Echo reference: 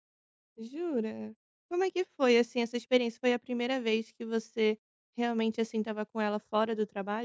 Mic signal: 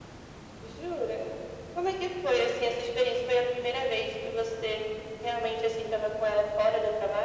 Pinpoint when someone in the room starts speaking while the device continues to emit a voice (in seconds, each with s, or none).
none